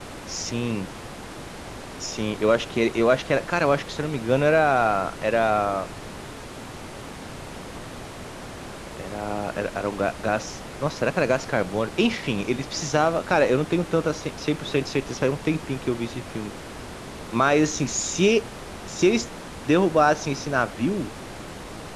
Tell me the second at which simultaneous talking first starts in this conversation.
none

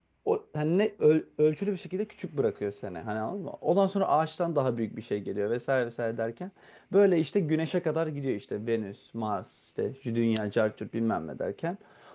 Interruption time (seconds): none

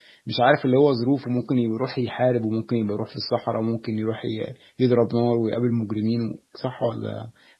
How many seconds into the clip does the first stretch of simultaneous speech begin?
none

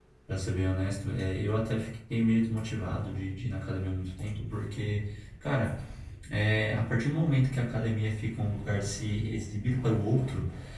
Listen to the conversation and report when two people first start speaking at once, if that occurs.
none

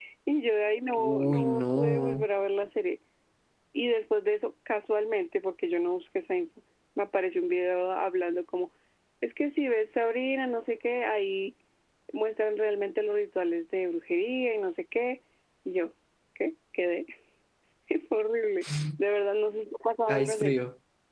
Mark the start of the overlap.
1.0 s

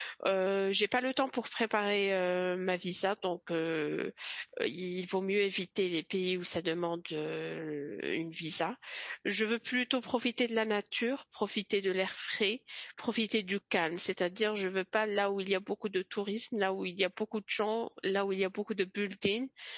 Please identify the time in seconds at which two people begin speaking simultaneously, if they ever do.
none

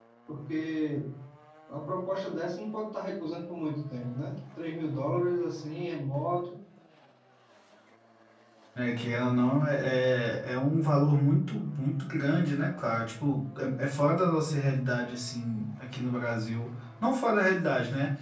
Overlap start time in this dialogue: none

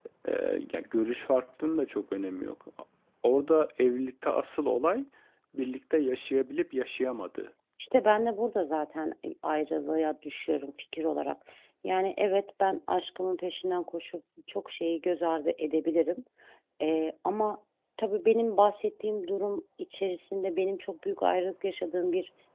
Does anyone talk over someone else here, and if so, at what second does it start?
none

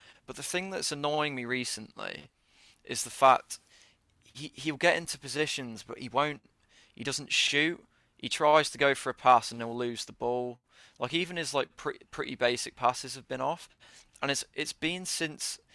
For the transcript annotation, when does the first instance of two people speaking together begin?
none

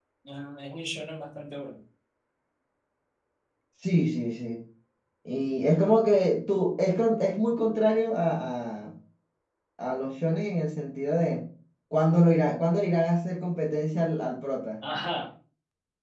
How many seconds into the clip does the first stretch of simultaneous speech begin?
none

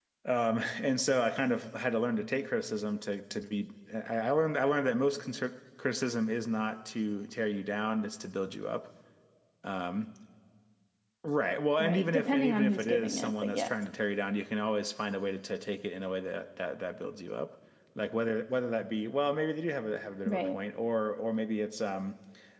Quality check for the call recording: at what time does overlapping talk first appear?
11.8 s

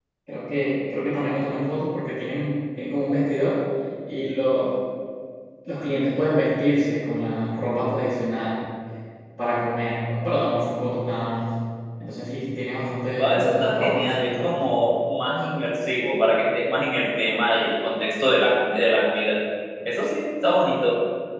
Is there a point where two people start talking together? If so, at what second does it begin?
13.2 s

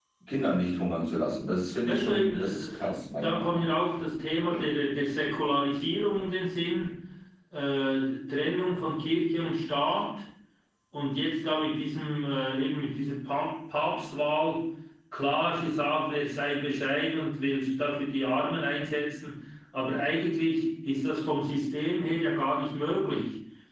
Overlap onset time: 1.8 s

